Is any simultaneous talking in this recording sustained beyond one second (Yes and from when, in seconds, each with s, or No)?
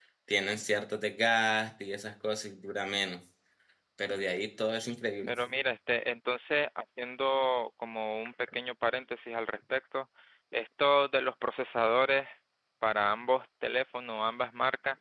No